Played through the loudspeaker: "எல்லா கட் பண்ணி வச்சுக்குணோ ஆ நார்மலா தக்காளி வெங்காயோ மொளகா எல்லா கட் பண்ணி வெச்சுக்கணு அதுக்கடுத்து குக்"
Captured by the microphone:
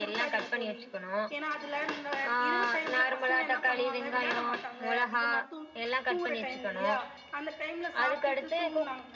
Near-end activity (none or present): present